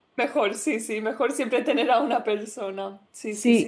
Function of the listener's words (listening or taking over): taking over